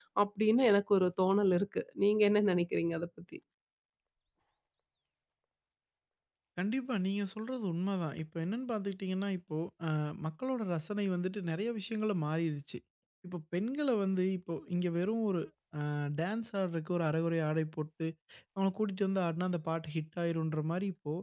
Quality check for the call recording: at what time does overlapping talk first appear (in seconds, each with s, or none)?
none